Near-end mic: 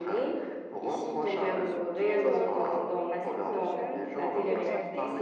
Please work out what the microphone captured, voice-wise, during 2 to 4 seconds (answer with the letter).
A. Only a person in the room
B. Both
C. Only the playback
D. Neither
B